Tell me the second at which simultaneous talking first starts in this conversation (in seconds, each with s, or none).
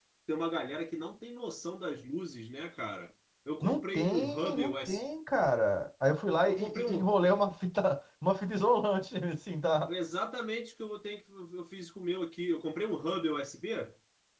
3.6 s